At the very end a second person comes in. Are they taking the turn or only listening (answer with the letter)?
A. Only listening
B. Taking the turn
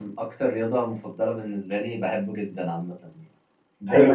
B